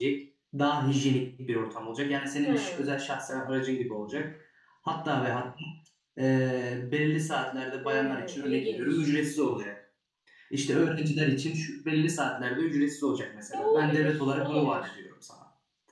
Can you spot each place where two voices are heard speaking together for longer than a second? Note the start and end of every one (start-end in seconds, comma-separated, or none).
7.8-9.0, 13.5-14.9